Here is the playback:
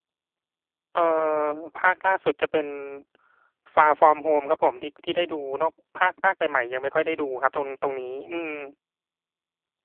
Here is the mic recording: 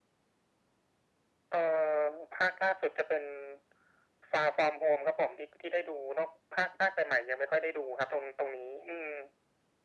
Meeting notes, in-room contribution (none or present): none